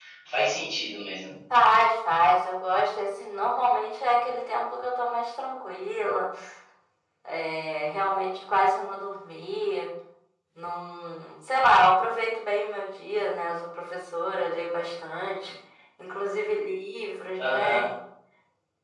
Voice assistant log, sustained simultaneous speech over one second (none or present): none